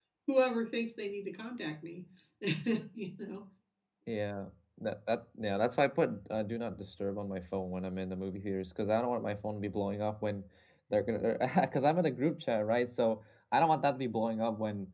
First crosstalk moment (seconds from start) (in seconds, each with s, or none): none